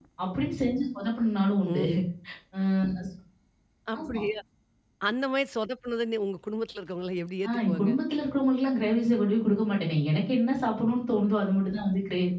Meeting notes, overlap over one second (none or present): none